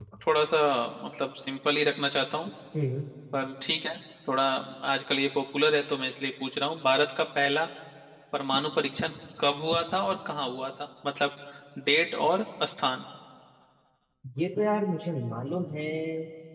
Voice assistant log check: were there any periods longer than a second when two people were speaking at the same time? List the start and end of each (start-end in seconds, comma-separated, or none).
none